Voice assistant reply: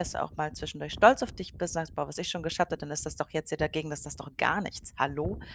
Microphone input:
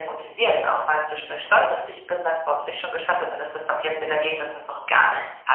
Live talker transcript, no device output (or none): none